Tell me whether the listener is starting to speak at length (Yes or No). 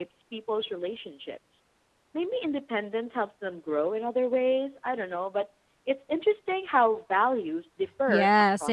Yes